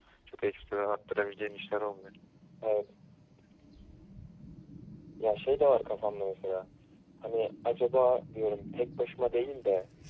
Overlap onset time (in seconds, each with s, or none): none